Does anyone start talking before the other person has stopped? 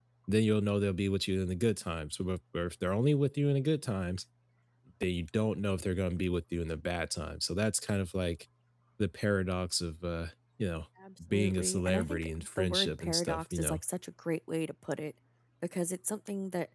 Yes, from 11.3 s

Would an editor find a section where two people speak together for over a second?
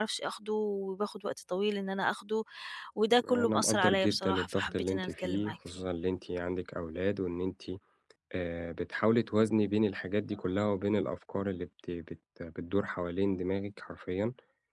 Yes, from 3.3 s

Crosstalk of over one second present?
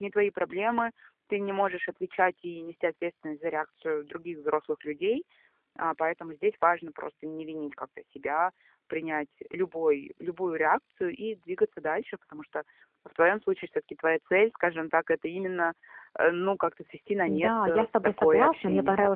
Yes, from 17.3 s

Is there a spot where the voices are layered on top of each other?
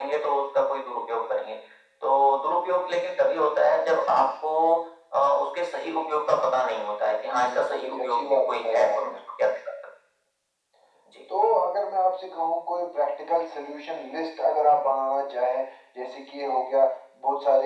Yes, from 7.2 s

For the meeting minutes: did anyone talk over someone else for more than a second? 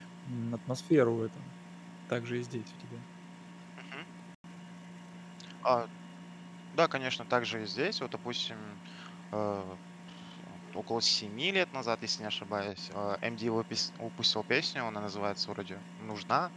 No

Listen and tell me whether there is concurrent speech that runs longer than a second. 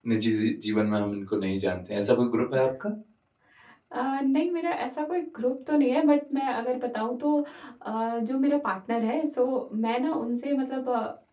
No

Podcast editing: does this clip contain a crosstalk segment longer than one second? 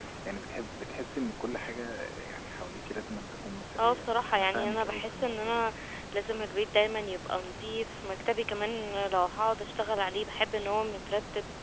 Yes, from 3.8 s

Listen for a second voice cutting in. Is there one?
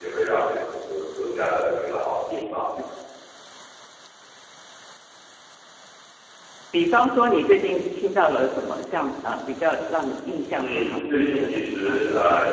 Yes, from 10.6 s

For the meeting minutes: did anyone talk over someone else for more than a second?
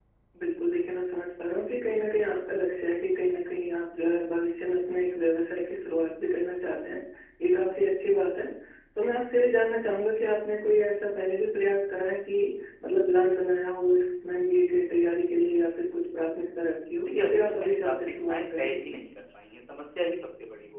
Yes, from 17.1 s

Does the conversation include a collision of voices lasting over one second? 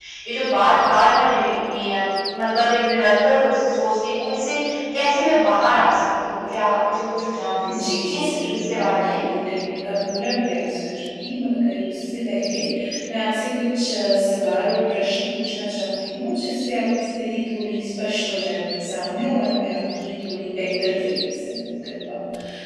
Yes, from 7.7 s

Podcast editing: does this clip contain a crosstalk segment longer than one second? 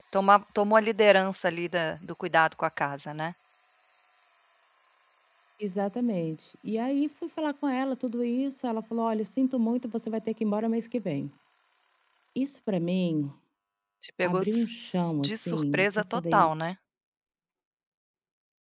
Yes, from 14.2 s

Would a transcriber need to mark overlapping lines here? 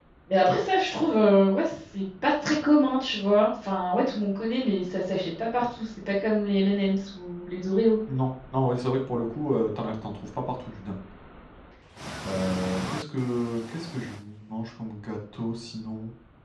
No

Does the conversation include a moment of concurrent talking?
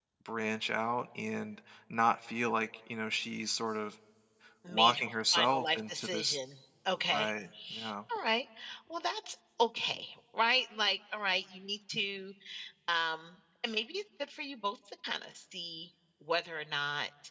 Yes, from 4.7 s

